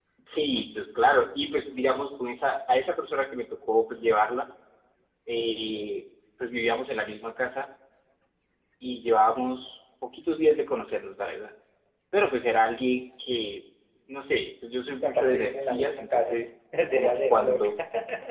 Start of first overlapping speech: 15.0 s

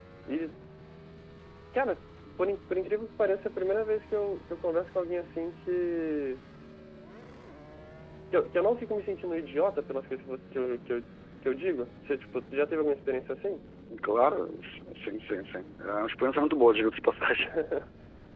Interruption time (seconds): none

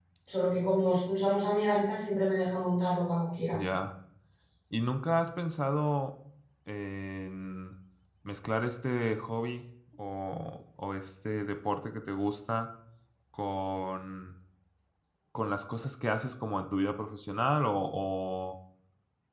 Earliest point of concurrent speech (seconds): none

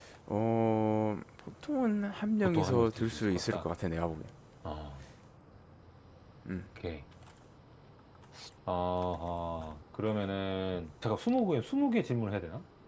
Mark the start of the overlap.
2.4 s

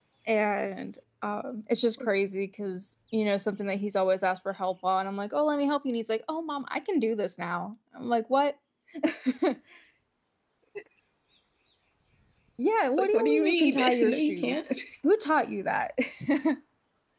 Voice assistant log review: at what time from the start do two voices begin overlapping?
13.0 s

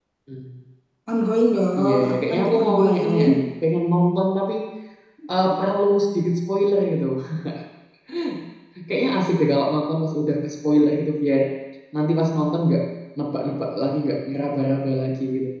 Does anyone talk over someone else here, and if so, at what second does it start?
1.8 s

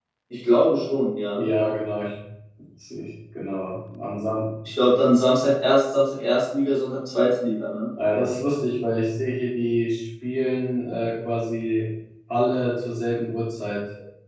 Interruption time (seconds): none

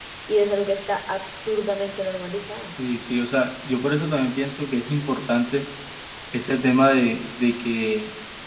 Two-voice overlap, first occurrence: none

